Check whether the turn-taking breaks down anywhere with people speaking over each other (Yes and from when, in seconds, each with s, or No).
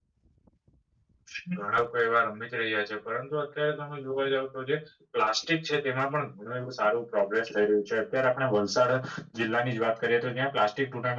No